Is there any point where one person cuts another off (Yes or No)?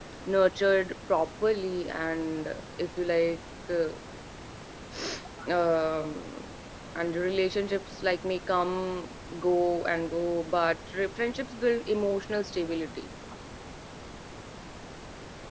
No